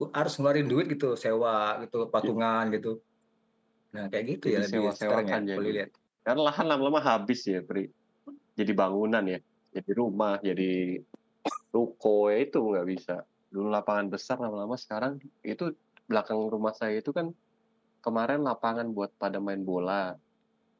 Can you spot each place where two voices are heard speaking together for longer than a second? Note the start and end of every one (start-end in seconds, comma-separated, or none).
4.5-5.7